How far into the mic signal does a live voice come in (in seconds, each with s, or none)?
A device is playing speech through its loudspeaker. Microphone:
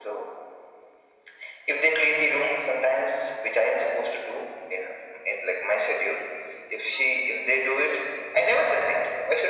none